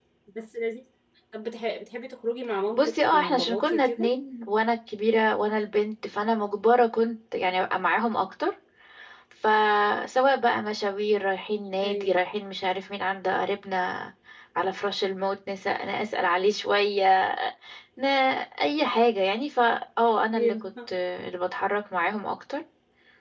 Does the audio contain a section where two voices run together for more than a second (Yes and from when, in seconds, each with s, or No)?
Yes, from 2.7 s